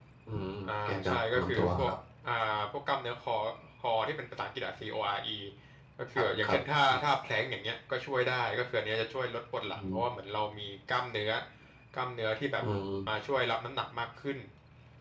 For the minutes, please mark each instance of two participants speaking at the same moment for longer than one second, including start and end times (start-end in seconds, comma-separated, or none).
0.6-1.9